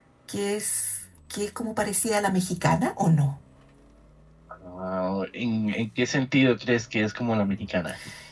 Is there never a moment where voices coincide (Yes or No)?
Yes